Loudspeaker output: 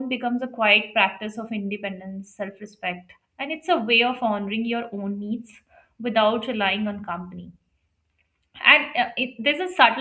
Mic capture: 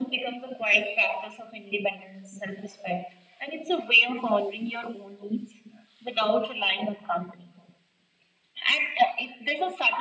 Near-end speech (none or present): none